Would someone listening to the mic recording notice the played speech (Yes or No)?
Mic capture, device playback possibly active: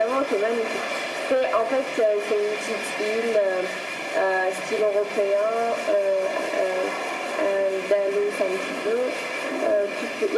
Yes